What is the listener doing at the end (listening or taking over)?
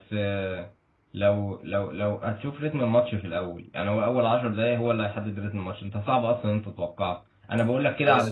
listening